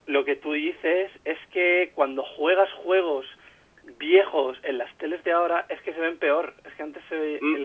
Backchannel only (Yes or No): Yes